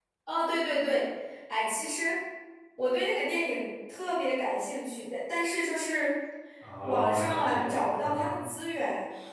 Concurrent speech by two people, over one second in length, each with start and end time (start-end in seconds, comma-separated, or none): 6.8-8.4